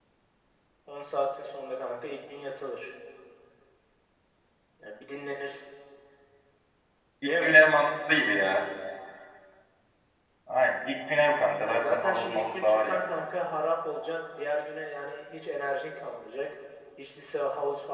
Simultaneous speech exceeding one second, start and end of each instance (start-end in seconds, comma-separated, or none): 11.6-13.0